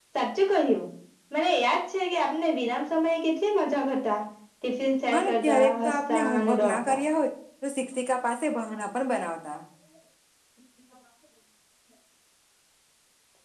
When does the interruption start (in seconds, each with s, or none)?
5.1 s